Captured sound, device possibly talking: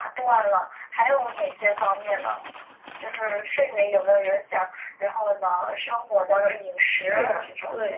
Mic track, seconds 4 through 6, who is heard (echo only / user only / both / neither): echo only